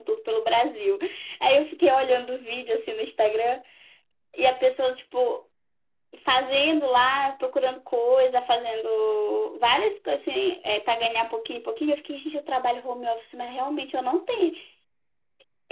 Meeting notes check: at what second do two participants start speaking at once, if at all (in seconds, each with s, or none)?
none